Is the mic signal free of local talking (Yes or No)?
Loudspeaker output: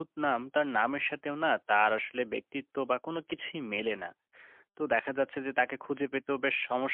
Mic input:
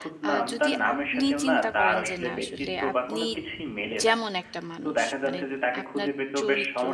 No